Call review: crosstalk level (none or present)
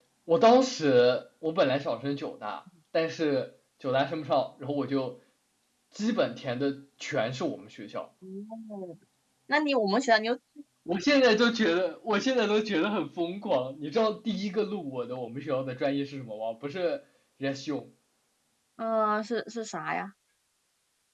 none